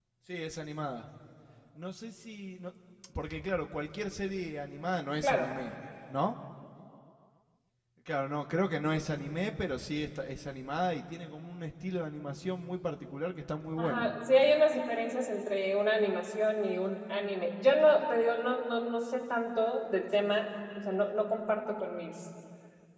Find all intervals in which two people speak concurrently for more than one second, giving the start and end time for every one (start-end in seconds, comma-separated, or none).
none